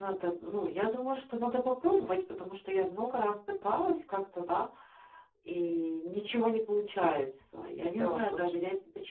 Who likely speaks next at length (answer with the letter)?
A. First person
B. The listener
A